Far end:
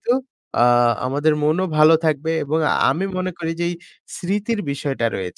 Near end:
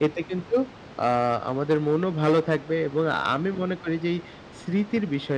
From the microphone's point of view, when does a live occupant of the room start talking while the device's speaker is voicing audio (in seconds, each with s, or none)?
none